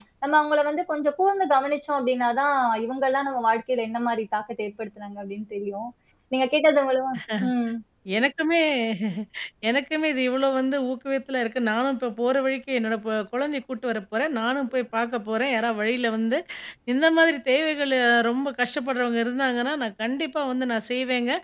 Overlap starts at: none

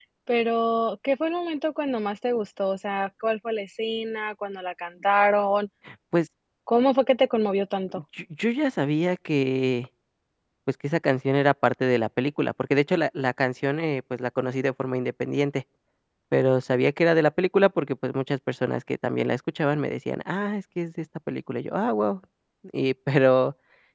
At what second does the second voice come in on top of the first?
none

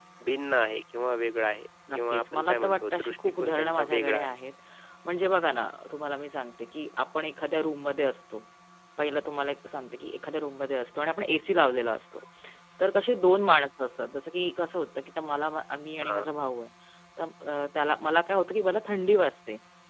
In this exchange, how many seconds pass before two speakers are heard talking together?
2 s

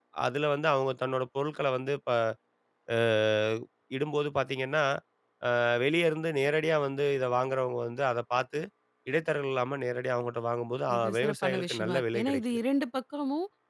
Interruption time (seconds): 11 s

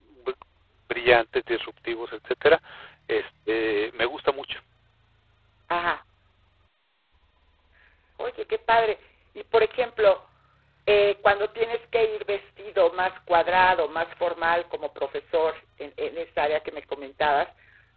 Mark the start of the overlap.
none

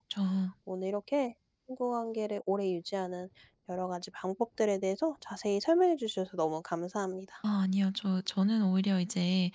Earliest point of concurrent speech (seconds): none

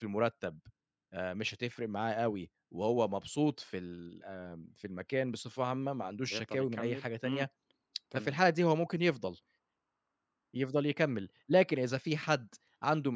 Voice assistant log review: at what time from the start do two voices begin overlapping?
6 s

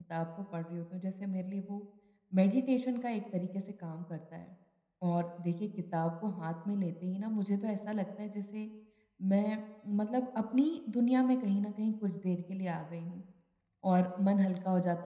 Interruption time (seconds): none

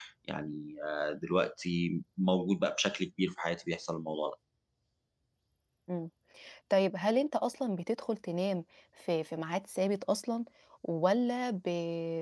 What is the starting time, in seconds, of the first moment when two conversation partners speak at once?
none

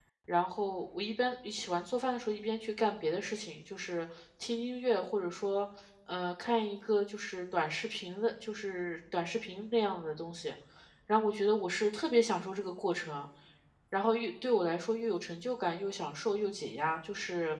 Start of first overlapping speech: none

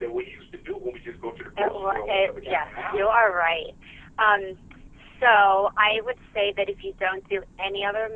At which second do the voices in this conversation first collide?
2 s

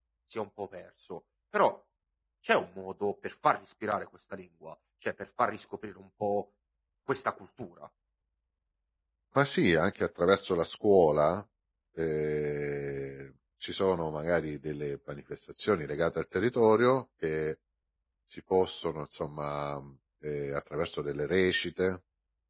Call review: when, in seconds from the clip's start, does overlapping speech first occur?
none

